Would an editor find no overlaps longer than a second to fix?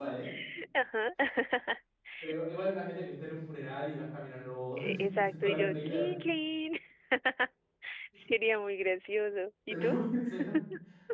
No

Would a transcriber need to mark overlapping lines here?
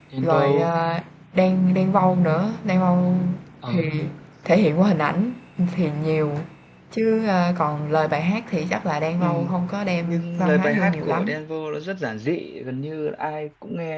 Yes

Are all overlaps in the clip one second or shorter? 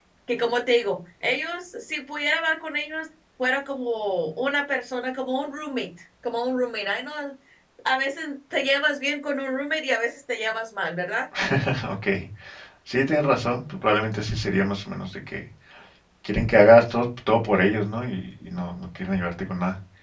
Yes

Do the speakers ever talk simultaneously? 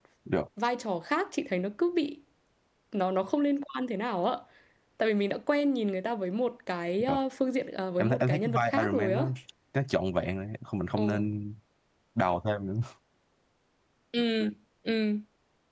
Yes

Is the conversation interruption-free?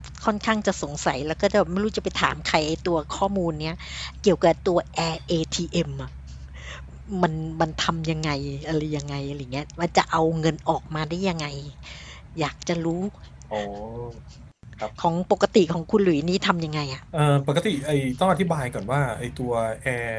Yes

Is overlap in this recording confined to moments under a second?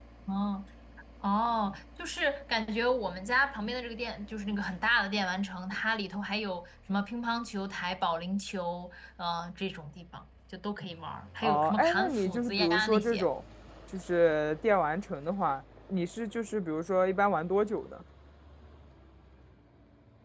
No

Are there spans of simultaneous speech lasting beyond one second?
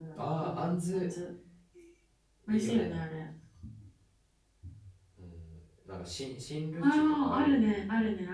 Yes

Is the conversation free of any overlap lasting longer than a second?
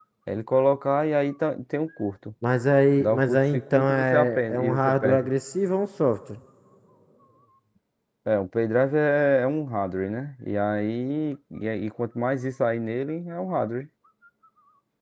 No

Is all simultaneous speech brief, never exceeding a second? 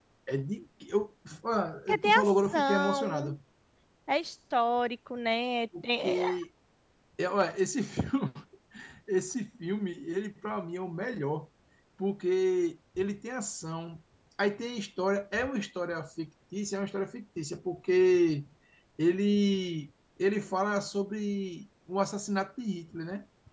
No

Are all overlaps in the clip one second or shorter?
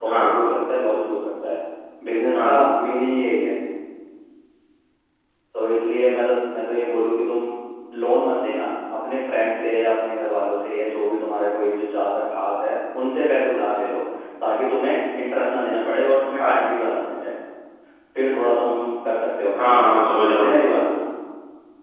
Yes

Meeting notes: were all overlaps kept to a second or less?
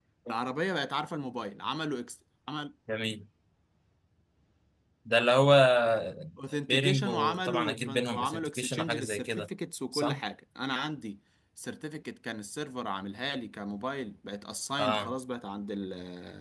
No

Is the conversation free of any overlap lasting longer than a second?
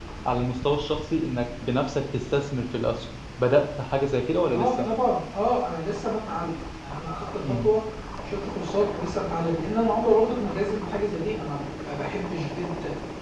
Yes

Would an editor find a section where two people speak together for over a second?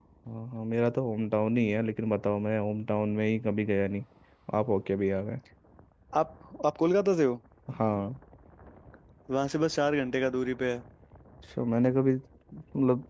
No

